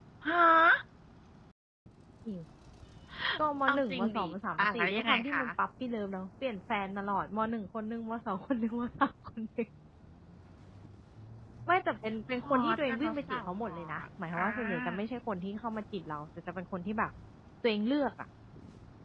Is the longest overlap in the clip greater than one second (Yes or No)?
Yes